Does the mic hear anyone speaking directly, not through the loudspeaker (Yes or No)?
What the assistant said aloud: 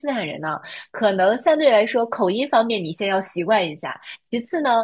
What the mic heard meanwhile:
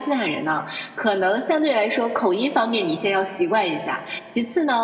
No